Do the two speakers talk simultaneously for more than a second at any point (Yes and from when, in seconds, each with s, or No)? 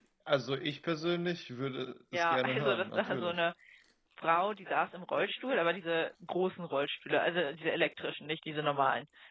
Yes, from 2.1 s